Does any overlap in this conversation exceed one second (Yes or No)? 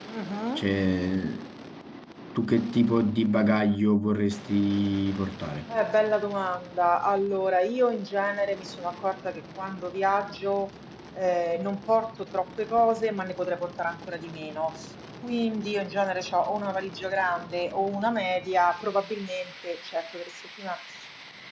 No